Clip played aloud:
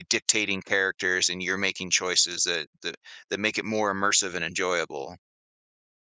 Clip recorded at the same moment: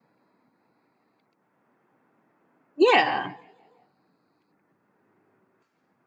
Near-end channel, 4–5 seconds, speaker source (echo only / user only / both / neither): neither